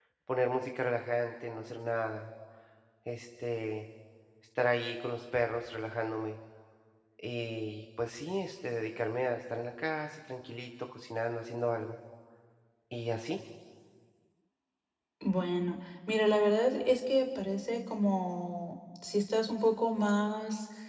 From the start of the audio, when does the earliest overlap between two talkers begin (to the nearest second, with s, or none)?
none